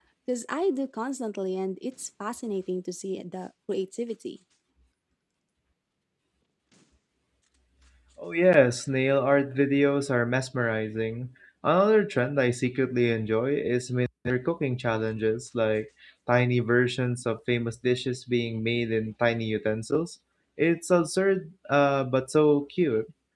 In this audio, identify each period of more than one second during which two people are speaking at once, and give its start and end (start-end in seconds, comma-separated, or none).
none